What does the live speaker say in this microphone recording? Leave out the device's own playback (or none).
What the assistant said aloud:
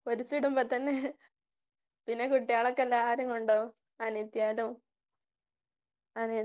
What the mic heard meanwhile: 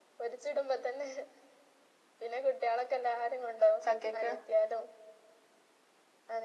ചക്കയ്ക്ക്.